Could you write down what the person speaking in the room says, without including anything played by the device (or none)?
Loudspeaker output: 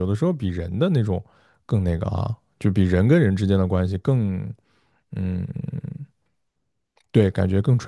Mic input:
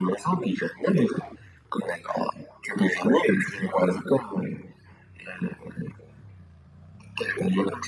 none